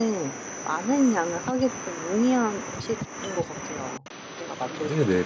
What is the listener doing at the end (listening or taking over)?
taking over